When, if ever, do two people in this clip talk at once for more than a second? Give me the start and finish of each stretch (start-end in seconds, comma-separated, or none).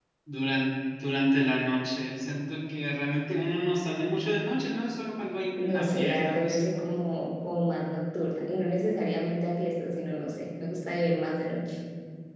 5.5-6.9